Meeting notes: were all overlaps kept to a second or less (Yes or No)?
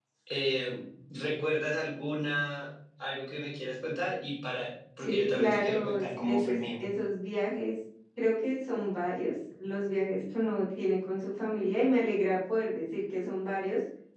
No